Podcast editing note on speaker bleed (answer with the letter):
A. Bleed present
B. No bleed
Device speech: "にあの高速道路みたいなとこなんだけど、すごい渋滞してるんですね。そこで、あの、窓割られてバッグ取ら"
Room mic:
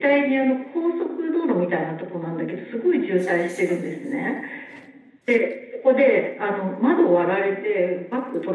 A